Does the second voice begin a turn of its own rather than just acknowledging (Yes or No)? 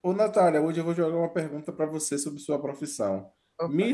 No